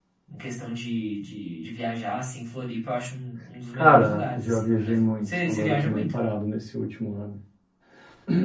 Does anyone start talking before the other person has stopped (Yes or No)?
Yes